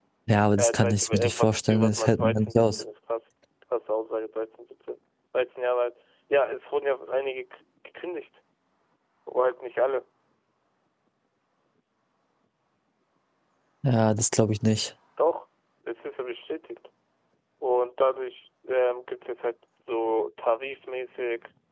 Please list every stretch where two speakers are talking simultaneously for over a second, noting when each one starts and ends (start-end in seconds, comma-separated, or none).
0.6-2.8